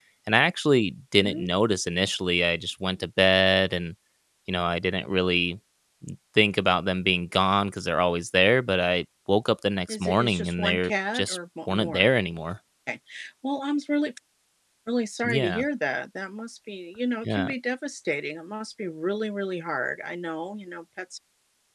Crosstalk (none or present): present